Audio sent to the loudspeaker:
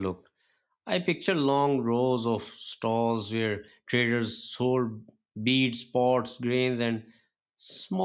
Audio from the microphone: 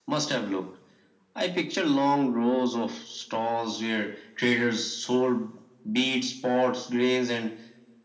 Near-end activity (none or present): none